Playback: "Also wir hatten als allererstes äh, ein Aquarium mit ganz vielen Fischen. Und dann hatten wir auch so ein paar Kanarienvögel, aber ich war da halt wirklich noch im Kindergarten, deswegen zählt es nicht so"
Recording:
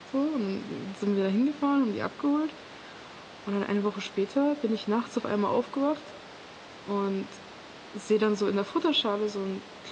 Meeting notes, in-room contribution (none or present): present